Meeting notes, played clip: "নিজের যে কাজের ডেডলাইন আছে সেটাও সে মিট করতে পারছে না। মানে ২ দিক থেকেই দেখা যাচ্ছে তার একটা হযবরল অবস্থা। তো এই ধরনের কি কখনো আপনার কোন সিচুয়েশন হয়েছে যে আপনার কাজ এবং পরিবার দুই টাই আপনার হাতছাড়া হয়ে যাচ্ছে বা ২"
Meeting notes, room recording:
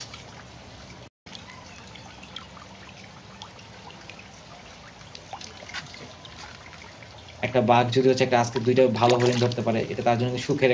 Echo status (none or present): none